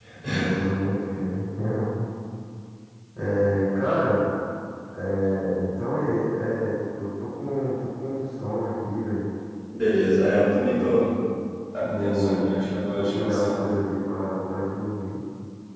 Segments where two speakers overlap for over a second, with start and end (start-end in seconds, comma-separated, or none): 11.8-13.8